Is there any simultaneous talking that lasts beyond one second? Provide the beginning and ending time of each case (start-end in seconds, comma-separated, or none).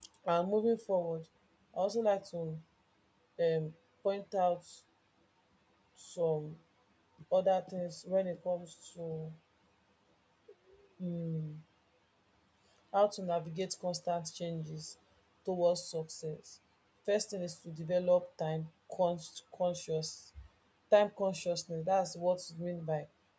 none